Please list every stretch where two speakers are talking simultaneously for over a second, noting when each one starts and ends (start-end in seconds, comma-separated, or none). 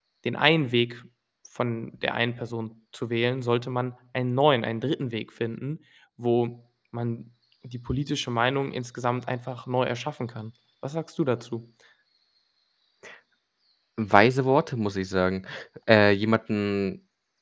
none